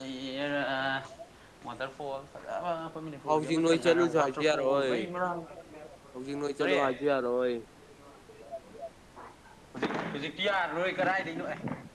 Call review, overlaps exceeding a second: present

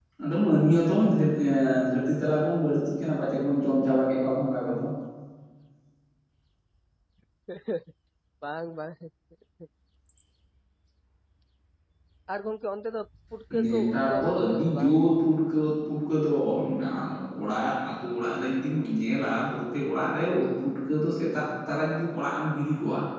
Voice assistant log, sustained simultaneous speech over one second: present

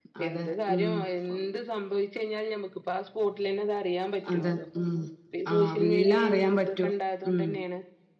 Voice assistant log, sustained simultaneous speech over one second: present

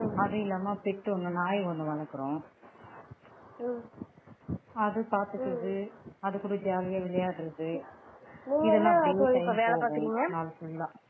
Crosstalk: present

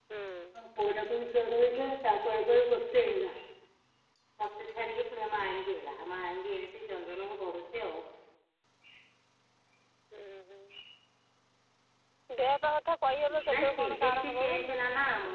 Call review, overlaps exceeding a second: present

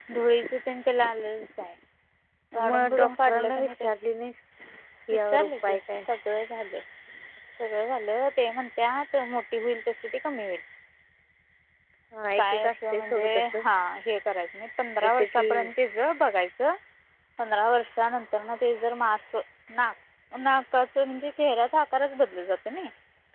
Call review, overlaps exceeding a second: present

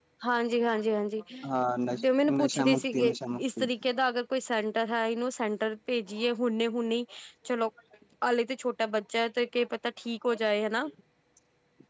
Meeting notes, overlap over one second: present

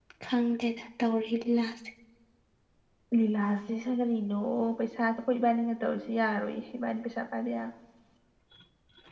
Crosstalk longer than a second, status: none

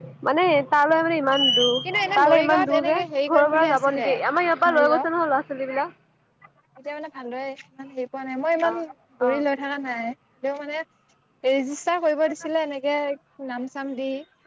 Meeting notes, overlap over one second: present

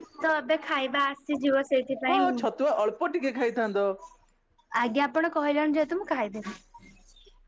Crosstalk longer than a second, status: none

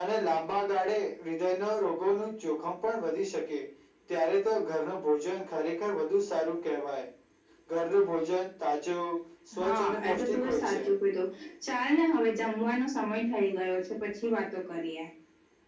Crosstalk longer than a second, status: present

